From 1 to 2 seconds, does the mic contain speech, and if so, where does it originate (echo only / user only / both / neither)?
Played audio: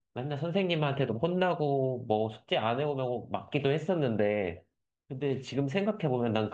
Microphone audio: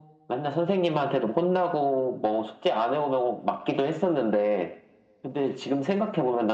echo only